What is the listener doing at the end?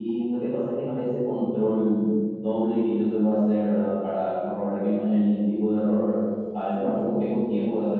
listening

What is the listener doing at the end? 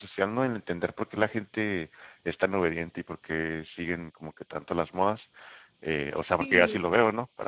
listening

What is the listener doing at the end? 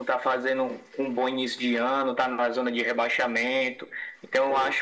listening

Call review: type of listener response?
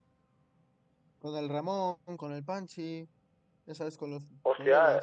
taking over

